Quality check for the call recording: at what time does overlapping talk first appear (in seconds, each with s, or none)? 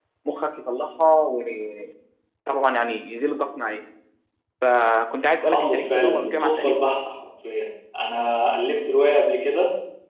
5.4 s